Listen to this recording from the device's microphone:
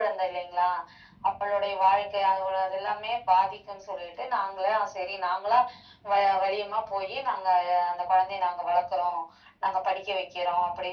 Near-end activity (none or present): none